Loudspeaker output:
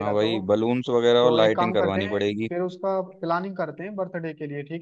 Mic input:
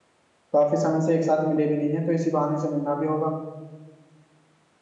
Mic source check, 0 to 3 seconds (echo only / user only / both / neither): user only